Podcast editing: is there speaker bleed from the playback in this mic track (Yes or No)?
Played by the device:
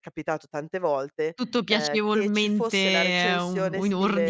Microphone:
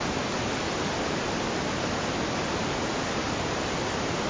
No